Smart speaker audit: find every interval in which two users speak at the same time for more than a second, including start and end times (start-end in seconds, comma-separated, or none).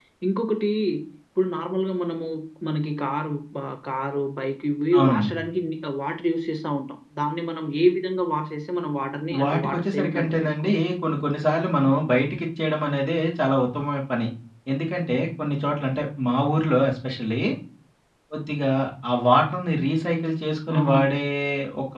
9.4-10.7